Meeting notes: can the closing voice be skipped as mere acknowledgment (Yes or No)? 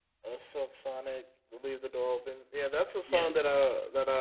Yes